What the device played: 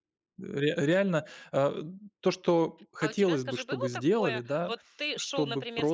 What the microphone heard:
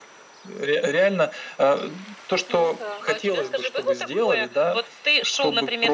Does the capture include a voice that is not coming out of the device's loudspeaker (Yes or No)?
Yes